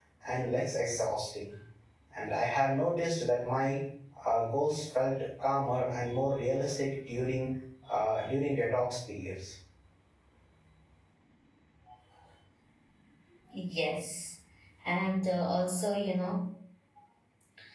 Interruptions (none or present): none